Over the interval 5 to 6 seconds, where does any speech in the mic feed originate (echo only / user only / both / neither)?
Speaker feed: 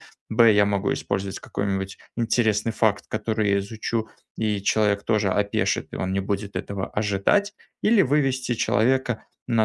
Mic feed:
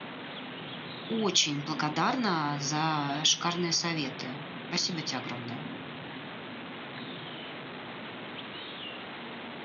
user only